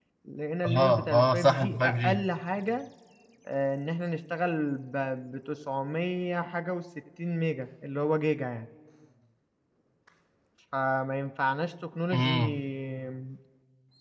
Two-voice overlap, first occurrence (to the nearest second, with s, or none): 1 s